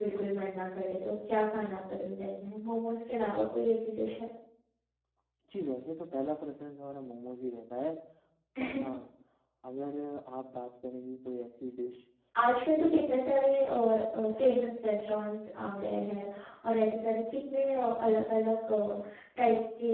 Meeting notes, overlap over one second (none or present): none